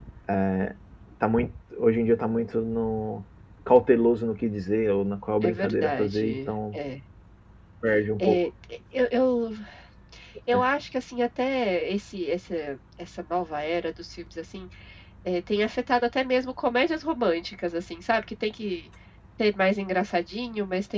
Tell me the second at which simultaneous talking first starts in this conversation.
5.4 s

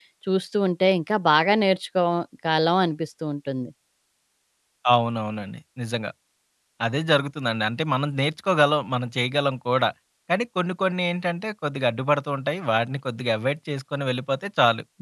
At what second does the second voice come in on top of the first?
none

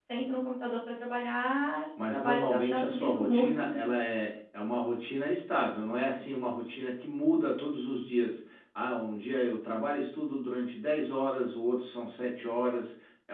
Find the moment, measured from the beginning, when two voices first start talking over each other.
2.0 s

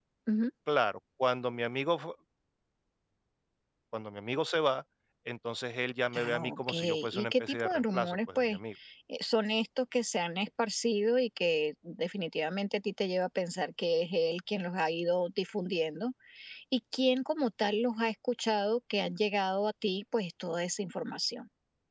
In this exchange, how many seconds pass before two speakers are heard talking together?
6.1 s

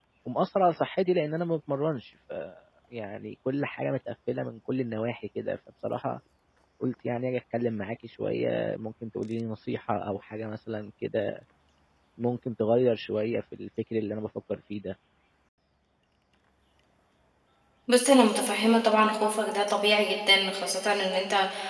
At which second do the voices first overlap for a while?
none

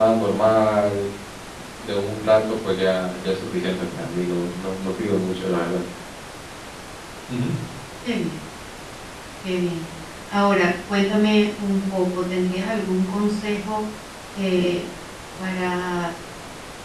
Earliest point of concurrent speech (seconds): none

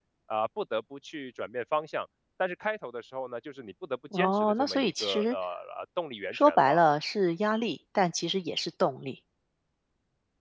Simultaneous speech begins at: 4.1 s

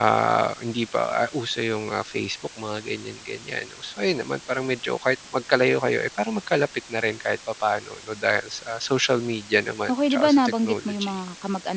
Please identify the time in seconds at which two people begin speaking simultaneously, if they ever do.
9.9 s

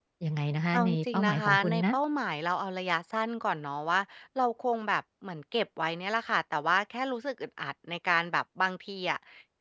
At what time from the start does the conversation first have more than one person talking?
0.7 s

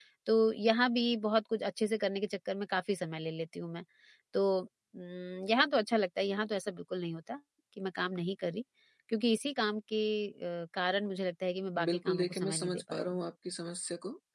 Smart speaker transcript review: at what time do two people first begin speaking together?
11.8 s

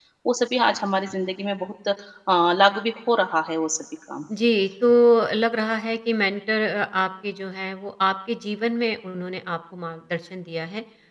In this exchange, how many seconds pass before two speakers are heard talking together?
none

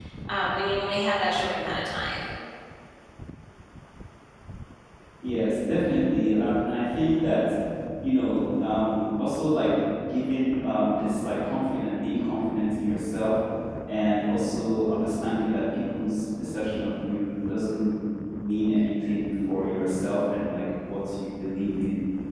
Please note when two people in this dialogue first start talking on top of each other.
none

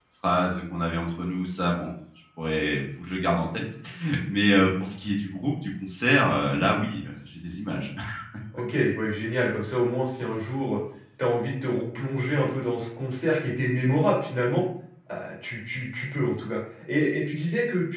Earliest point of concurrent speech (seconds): none

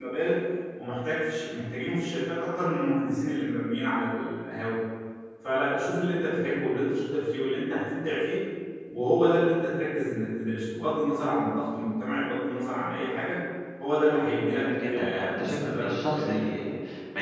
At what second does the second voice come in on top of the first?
14.5 s

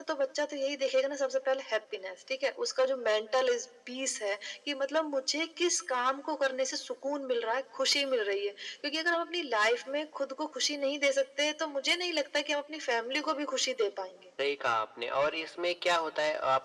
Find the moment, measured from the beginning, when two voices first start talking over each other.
none

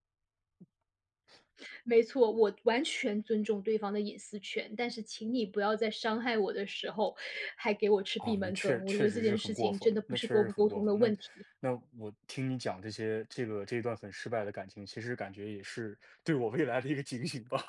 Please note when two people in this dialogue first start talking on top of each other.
8.2 s

